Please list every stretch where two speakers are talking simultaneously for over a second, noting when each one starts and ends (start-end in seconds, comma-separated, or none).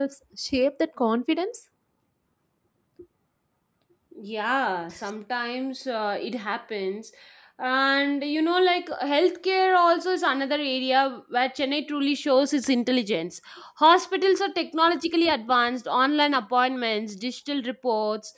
none